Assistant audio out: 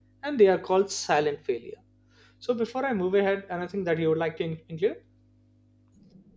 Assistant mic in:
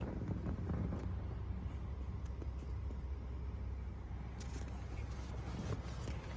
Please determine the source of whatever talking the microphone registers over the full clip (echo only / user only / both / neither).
neither